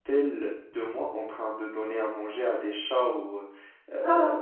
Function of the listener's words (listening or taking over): listening